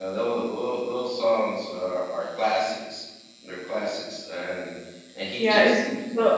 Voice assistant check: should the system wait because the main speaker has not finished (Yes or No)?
No